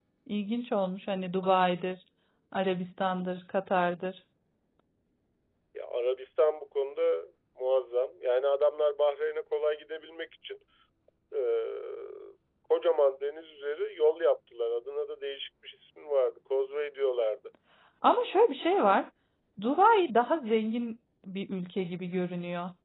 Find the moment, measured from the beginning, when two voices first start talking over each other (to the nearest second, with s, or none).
none